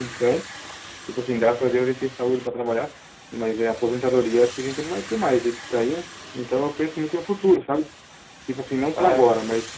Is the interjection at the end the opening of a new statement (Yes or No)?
No